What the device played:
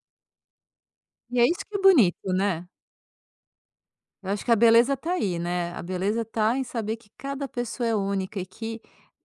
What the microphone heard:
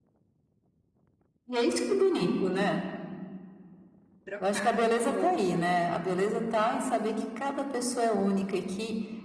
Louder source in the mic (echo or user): echo